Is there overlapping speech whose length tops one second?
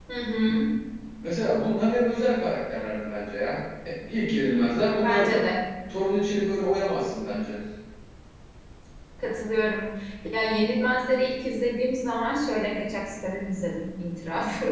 No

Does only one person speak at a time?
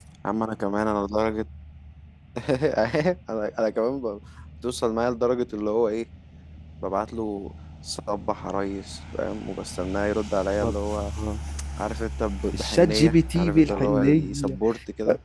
No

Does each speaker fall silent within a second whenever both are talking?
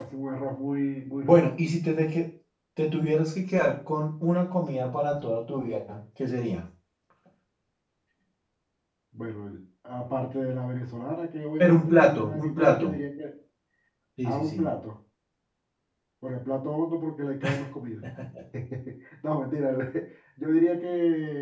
No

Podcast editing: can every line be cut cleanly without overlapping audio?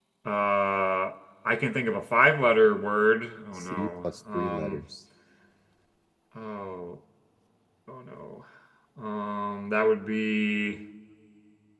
No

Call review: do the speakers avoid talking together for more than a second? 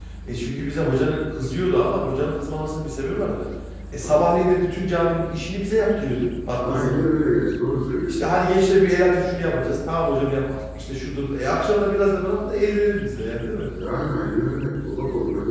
Yes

